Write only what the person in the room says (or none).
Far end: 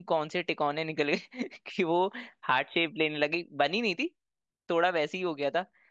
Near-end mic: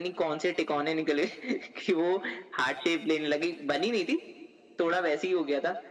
none